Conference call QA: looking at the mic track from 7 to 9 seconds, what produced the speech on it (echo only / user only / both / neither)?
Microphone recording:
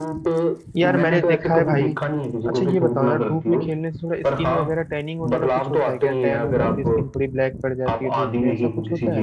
both